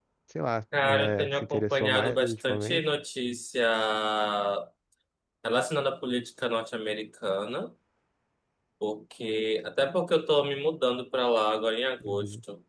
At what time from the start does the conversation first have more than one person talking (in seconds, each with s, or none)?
0.8 s